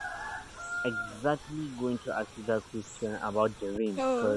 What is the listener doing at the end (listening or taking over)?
listening